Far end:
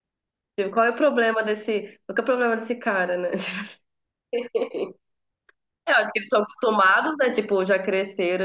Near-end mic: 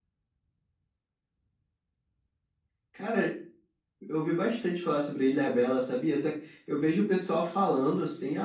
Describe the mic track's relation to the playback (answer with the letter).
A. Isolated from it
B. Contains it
A